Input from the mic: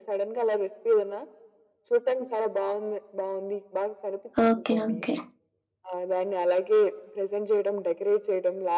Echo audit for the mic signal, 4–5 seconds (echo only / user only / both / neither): both